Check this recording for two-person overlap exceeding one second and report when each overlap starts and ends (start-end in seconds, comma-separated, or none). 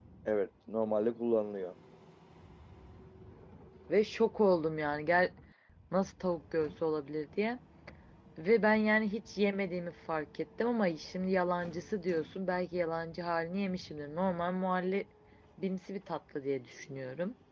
none